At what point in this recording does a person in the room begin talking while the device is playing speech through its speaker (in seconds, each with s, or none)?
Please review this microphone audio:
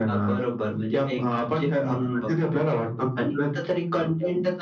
none